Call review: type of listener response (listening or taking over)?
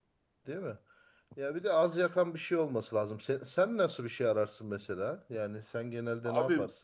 taking over